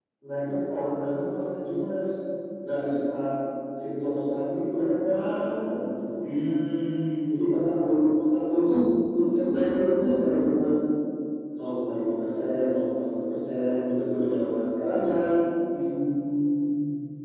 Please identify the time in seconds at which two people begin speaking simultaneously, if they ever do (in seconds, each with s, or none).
none